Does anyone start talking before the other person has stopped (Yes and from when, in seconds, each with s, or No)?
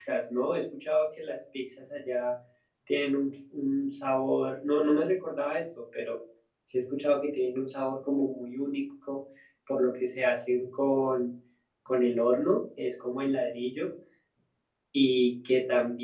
No